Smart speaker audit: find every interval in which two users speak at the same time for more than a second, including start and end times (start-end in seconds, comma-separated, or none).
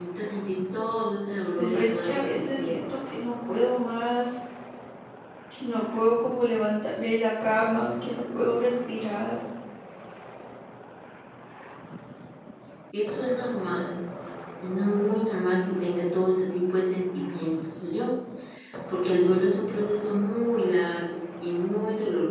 1.6-2.8